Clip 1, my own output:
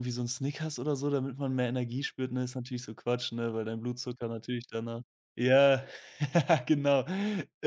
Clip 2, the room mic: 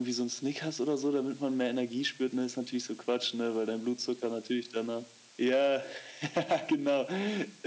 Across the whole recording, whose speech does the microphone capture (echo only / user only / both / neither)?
echo only